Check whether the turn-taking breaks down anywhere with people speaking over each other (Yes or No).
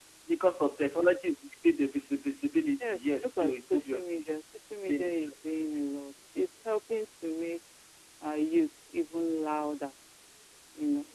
Yes